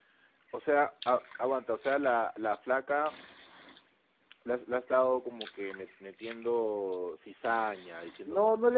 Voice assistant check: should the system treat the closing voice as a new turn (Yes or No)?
Yes